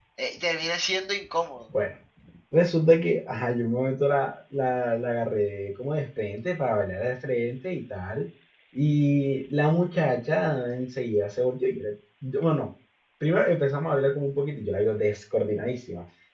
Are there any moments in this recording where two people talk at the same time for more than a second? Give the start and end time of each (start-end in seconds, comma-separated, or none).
none